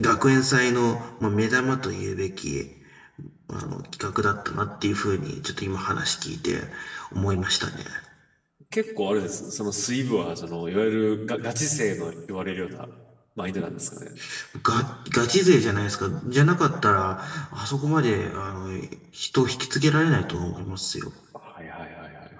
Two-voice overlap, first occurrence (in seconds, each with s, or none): none